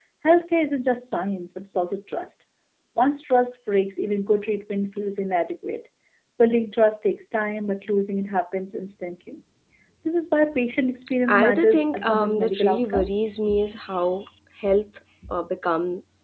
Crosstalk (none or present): present